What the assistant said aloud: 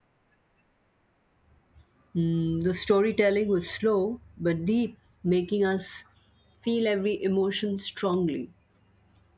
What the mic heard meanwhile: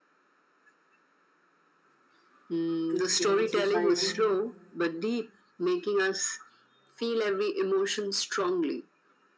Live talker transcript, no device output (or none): to change society